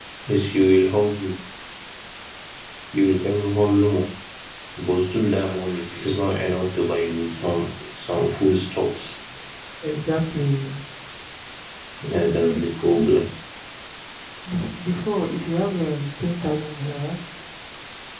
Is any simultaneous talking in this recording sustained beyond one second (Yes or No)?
No